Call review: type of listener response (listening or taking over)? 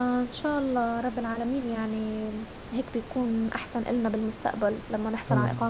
listening